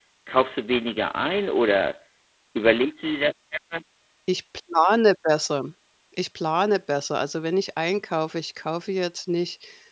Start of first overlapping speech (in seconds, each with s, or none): none